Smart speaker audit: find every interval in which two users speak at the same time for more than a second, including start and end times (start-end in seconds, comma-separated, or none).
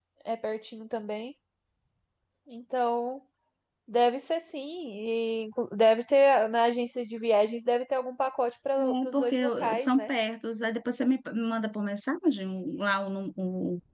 8.8-10.1